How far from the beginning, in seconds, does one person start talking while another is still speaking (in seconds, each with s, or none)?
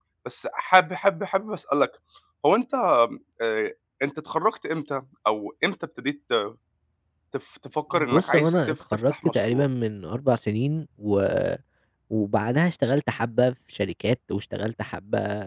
7.9 s